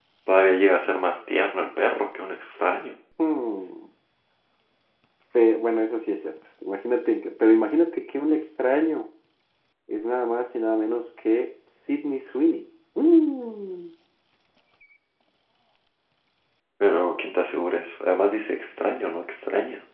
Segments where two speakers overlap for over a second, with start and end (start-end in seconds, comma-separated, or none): none